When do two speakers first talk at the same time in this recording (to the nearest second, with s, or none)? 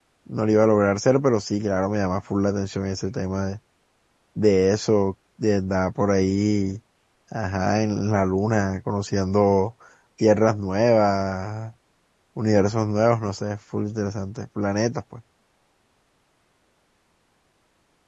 none